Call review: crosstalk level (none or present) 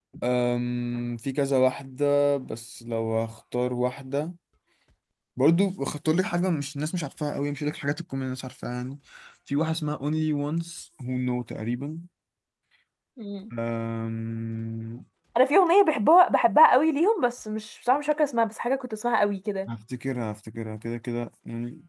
none